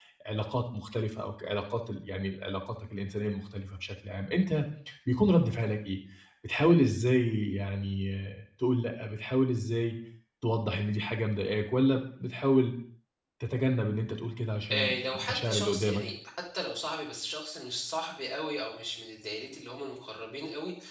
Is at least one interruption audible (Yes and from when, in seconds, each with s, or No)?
Yes, from 14.7 s